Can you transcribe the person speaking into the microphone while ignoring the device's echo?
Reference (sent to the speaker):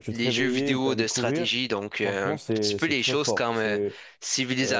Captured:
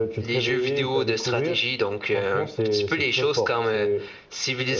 none

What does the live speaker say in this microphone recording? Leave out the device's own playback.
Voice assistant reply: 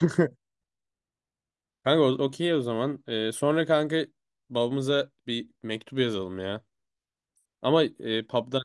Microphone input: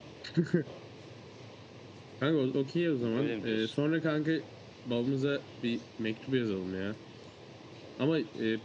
Öyle mi diyorsun?

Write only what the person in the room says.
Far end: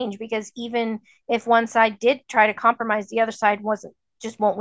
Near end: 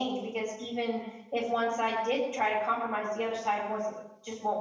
none

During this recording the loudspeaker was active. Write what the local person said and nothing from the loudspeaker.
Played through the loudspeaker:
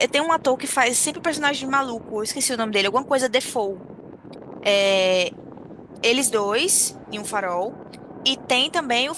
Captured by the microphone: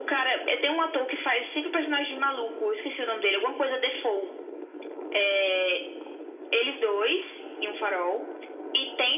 none

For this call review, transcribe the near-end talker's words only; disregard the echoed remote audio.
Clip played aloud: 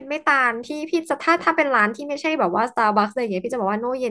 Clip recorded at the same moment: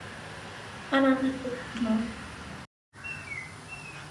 อันนั้นอะเนาะ

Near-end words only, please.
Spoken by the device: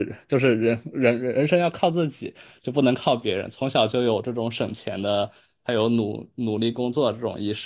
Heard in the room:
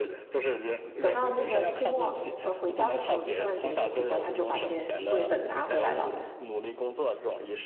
等到那个期末呃回家的时候，就圣诞节的时候回家，他就把这些作业本拿回来了，

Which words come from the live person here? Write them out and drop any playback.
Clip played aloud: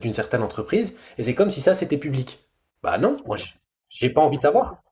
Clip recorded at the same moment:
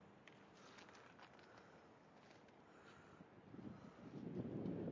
none

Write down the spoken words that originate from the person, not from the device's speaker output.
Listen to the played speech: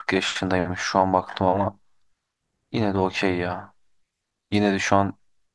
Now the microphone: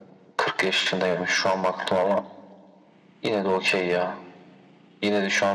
none

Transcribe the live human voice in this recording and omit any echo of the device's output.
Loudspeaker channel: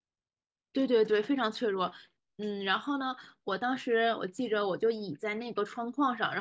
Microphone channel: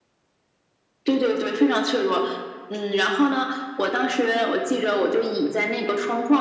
none

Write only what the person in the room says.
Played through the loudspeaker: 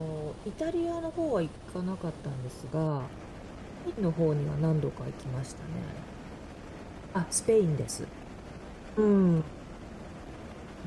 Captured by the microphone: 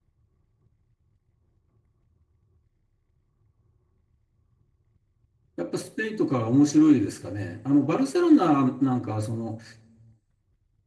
やっぱスペインとかは面白いですかね。あの、バルセロナなんかは、その、

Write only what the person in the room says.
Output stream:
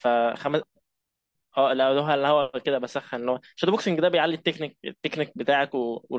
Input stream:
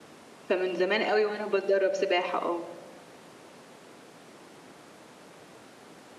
فمن زمان قوي وانا بتدرب سباحة اه

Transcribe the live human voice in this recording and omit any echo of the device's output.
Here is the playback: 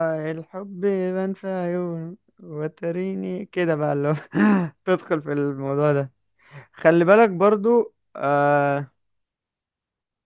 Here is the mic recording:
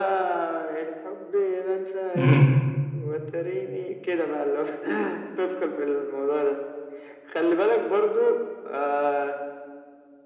مهم.

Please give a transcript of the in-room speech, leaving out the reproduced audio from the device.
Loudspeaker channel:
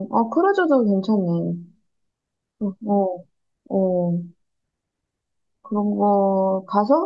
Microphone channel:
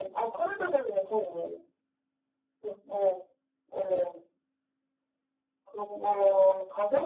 none

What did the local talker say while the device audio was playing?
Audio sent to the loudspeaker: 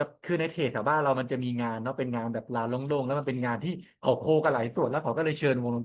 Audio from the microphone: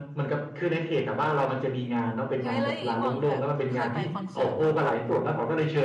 เฮ้ยแล้วอย่างนี้บอลแบบเคยไปคอนเสิร์ตบ้างปะ

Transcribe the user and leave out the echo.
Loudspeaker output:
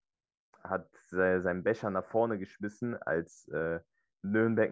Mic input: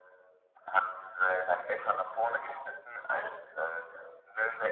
Was?

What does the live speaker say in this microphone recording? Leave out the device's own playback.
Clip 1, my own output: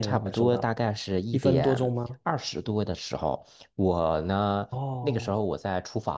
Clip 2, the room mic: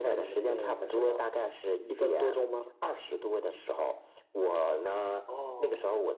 none

